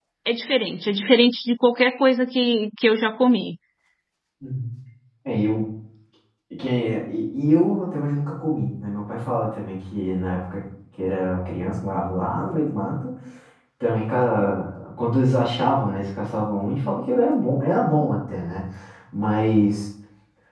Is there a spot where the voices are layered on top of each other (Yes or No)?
No